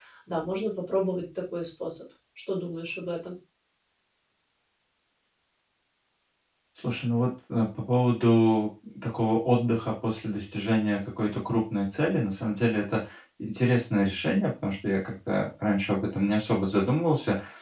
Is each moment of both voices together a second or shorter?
Yes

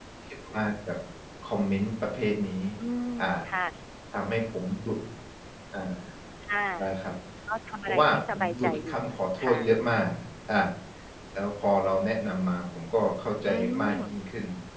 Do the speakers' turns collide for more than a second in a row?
Yes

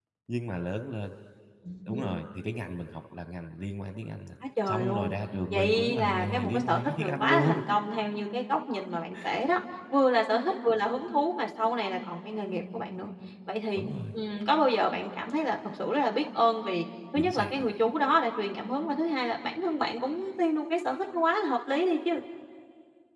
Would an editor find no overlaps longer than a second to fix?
No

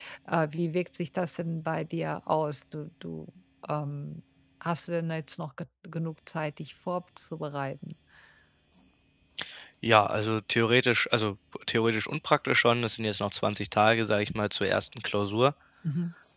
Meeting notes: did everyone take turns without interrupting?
Yes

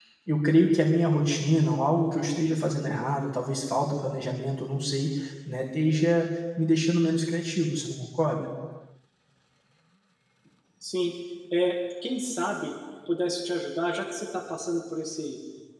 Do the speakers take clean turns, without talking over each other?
Yes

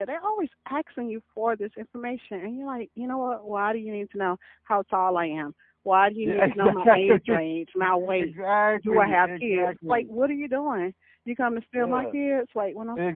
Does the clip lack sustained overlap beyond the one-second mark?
No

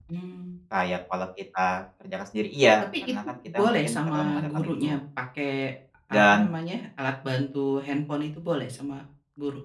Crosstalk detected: Yes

